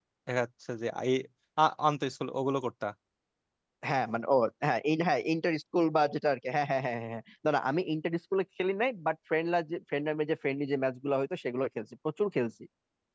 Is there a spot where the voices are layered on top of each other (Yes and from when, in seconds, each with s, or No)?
No